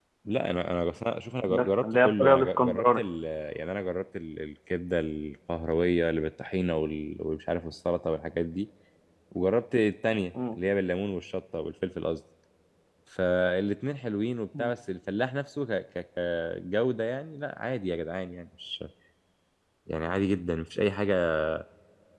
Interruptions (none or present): present